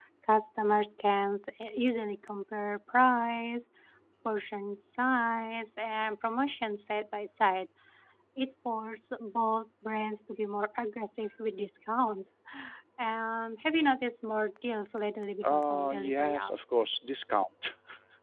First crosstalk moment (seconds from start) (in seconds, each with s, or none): 15.4 s